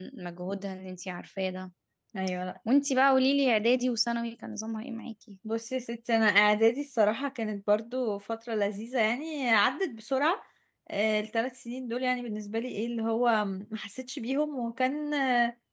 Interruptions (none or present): none